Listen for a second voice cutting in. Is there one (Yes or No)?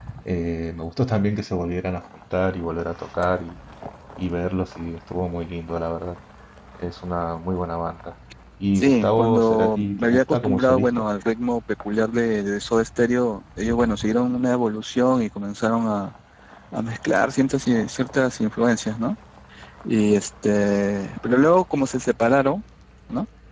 Yes